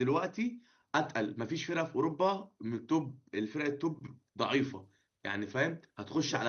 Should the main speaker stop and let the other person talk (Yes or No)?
No